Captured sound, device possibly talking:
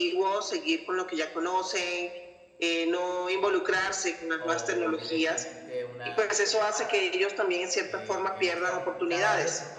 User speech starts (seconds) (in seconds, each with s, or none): 4.3 s